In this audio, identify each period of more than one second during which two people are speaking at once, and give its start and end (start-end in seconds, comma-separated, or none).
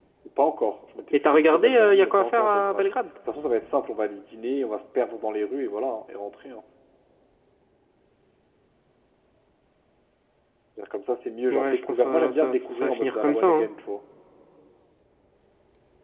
1.1-2.9, 11.5-13.7